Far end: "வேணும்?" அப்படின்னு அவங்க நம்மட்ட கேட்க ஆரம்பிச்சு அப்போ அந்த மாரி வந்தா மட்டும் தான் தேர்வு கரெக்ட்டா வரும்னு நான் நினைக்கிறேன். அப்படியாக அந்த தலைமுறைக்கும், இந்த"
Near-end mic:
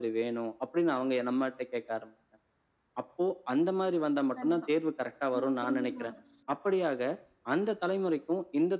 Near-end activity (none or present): present